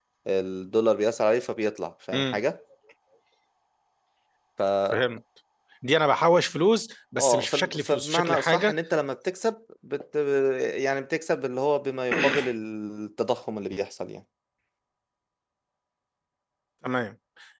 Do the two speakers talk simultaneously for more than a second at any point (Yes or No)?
Yes